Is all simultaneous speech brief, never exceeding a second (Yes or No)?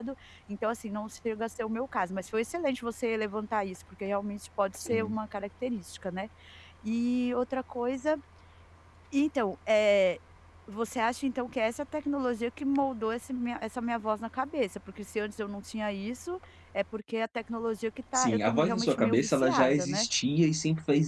No